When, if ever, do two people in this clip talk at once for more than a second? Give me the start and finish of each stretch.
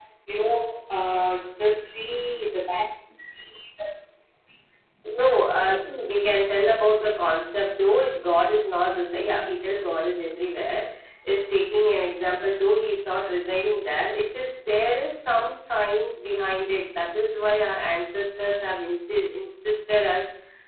none

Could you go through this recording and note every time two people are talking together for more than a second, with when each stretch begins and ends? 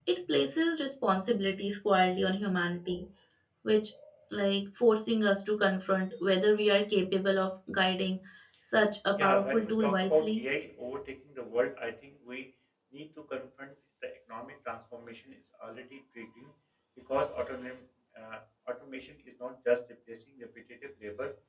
9.1-10.4

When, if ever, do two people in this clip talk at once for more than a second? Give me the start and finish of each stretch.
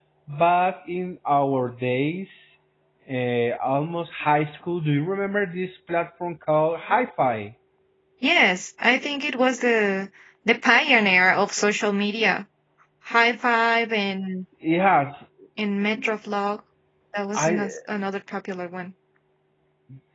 none

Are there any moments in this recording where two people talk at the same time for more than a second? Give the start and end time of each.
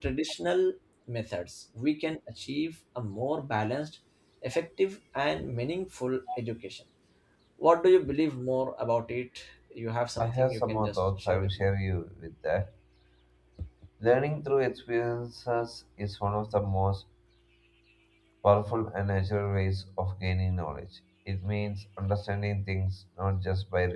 10.2-11.7

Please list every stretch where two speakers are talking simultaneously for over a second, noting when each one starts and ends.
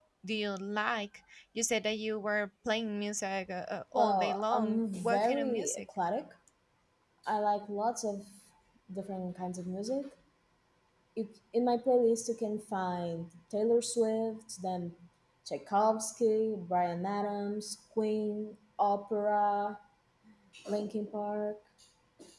3.9-5.8

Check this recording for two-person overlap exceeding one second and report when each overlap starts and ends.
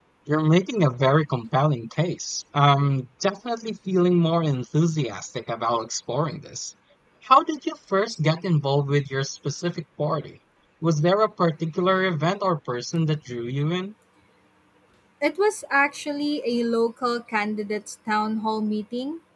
none

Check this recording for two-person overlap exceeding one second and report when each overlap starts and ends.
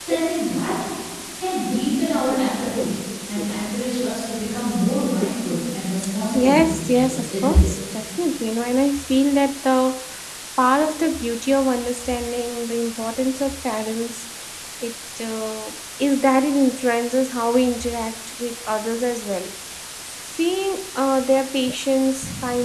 6.3-7.7

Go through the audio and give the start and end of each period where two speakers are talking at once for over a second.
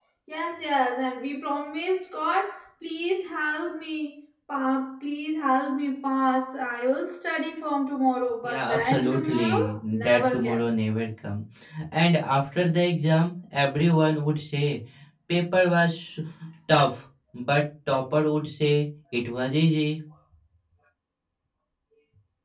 8.4-10.6

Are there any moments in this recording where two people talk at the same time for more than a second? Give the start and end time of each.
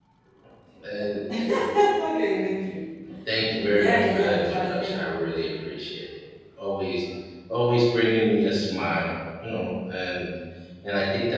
3.5-5.0

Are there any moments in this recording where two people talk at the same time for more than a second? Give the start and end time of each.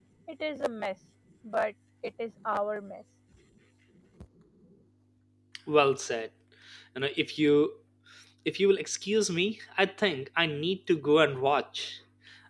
none

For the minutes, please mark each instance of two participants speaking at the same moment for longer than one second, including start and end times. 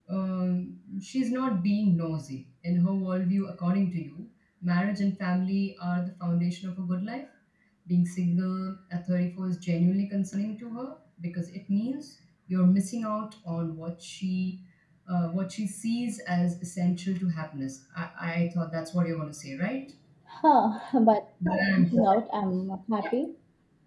none

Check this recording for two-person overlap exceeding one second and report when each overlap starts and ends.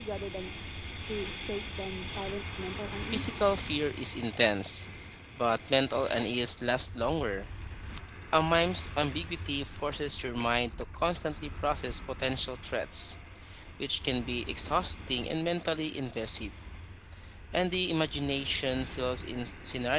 none

